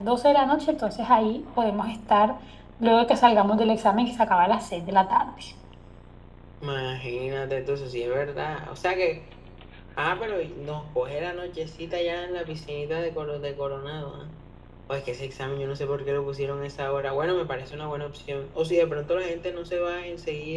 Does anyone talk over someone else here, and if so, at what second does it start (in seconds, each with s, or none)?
none